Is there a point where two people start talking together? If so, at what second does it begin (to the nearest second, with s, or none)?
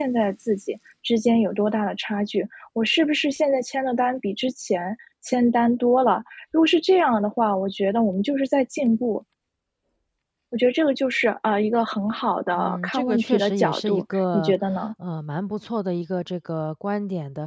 12 s